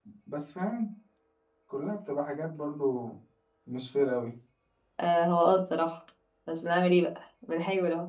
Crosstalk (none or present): none